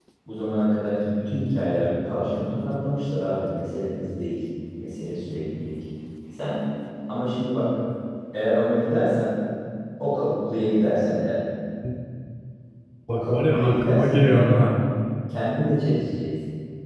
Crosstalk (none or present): present